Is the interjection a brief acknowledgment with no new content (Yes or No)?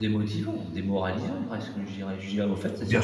No